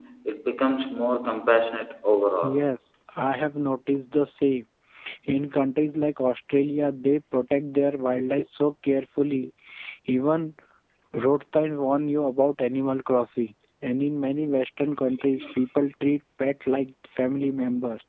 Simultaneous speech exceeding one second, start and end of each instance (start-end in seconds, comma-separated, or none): none